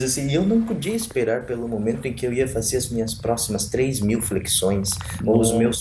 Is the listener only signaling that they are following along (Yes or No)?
Yes